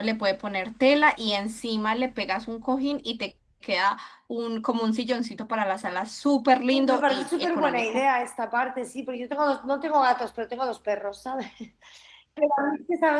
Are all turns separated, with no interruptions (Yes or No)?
No